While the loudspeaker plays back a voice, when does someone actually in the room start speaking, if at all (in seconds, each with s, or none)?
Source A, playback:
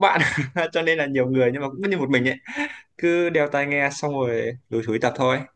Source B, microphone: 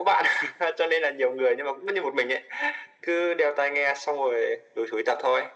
none